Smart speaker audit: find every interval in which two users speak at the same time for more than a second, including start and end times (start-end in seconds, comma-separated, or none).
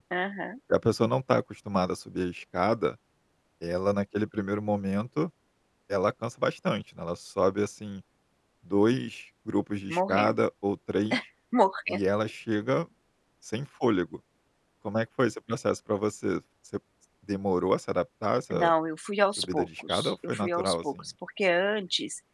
19.4-20.7